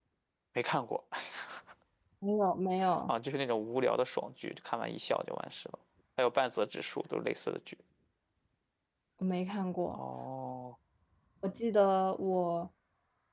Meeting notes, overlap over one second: none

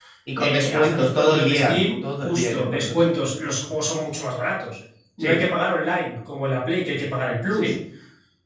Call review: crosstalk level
present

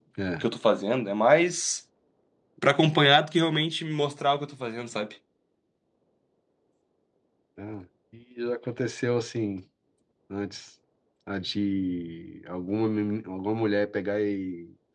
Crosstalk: none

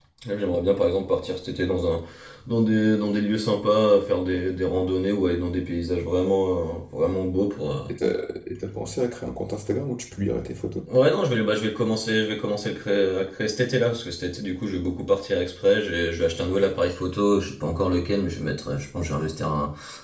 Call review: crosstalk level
none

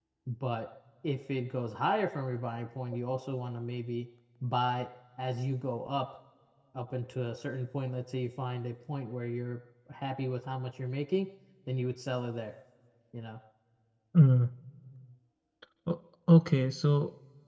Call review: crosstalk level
none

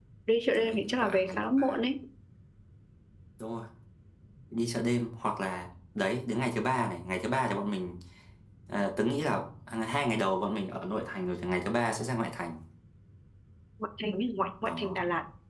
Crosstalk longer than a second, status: present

